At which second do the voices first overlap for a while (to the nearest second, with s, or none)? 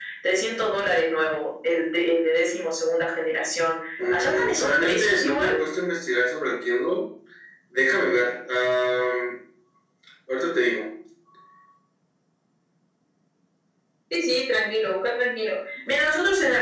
4 s